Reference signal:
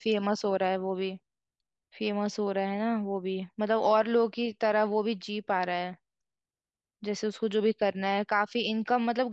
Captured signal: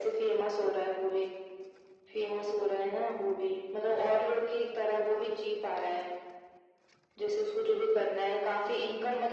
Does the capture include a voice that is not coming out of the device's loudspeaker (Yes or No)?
No